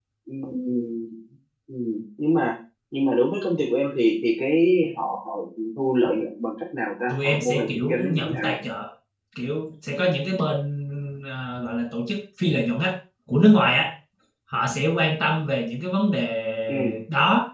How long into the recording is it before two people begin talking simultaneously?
7.1 s

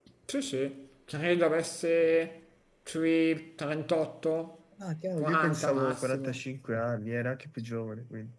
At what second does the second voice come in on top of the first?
5.2 s

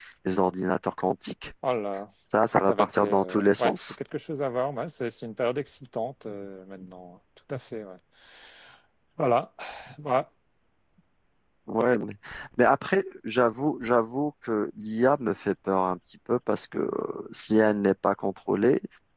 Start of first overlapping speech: 2.7 s

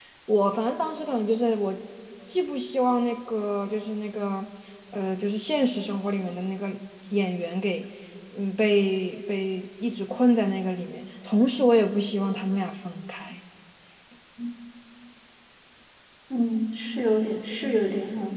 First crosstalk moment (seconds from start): none

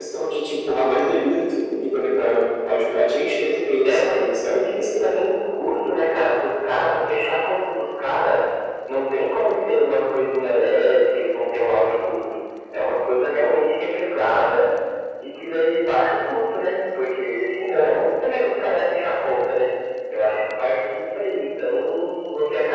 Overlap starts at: 3.8 s

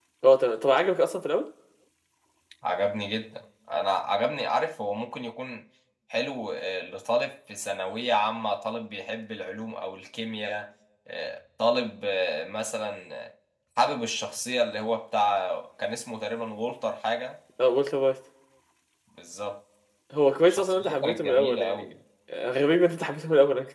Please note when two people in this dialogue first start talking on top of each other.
20.5 s

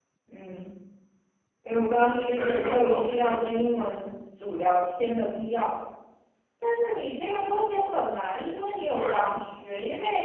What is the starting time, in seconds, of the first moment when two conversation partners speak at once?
1.9 s

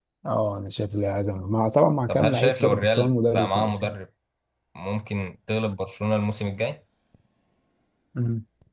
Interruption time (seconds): 2.1 s

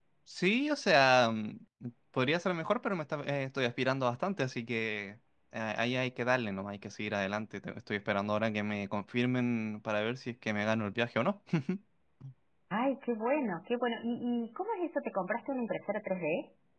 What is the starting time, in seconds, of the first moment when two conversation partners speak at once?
none

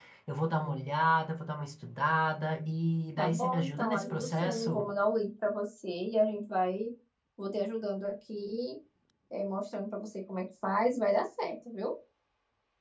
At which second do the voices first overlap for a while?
3.2 s

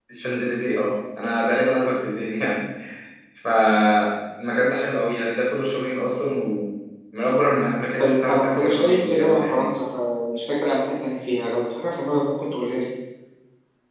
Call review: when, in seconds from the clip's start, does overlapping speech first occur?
8.0 s

